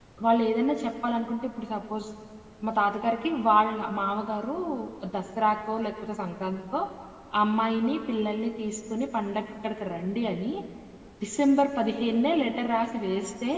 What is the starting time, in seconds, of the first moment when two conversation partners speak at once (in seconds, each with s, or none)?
none